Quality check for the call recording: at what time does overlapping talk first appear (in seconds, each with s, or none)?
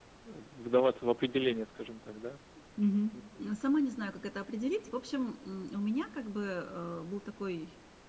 none